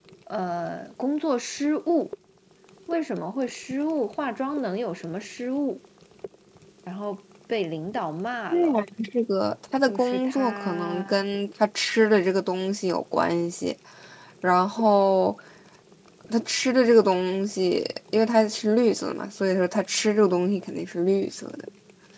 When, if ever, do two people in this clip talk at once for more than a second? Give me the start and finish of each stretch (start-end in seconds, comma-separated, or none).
9.8-11.2